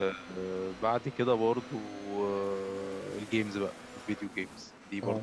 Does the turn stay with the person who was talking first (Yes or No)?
Yes